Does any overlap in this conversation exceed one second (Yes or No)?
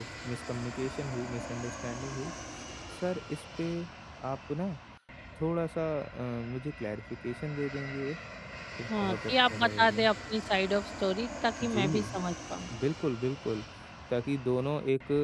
Yes